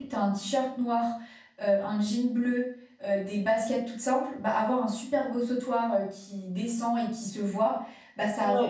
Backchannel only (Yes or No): Yes